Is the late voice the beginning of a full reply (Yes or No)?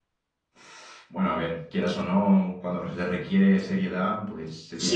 Yes